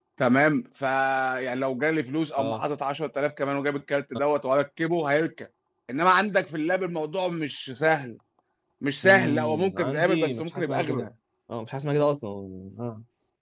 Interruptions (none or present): present